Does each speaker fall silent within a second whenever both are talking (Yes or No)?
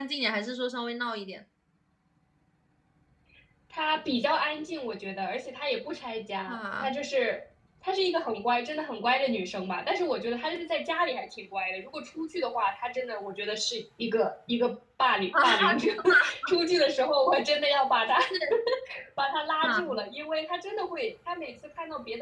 Yes